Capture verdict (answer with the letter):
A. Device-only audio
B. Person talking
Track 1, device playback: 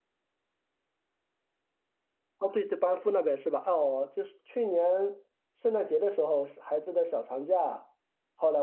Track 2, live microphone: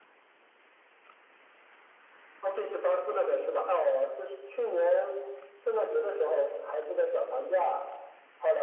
A